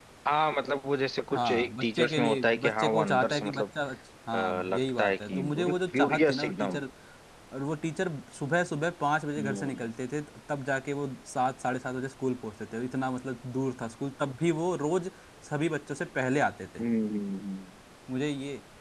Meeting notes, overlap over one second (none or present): present